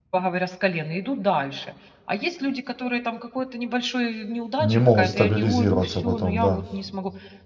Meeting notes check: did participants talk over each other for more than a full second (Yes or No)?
Yes